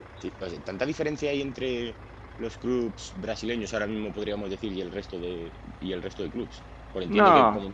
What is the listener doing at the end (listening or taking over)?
listening